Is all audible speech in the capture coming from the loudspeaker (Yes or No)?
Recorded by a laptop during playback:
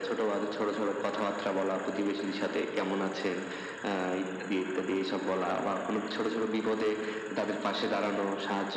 Yes